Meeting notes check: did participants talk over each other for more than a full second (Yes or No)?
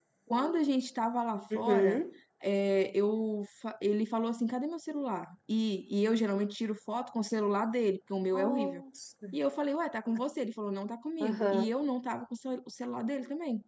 No